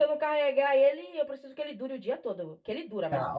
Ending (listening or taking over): taking over